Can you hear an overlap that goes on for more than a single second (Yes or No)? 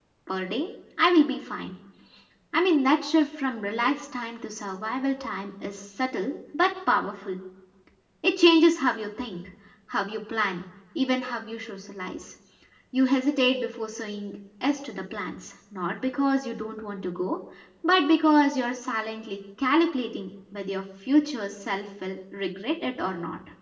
No